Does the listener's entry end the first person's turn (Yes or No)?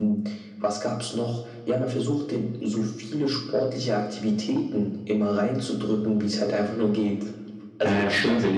Yes